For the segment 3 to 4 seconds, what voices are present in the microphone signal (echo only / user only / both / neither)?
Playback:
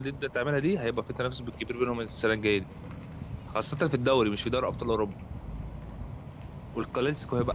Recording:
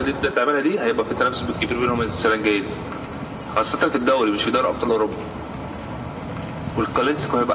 echo only